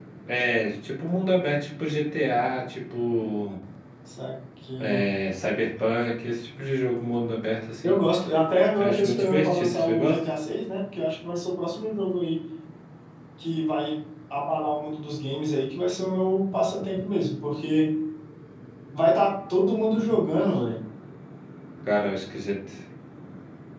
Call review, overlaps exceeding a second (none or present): present